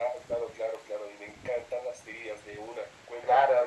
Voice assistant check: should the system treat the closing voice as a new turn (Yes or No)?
Yes